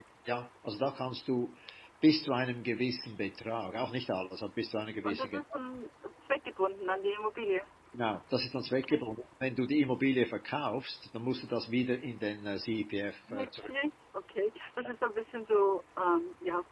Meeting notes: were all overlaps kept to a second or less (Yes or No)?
Yes